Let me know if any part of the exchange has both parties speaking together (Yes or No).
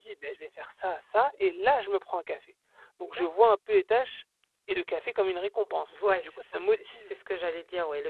Yes